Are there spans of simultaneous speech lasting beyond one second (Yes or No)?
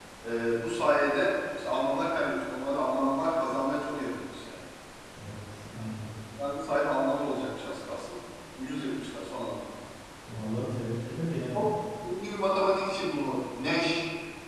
No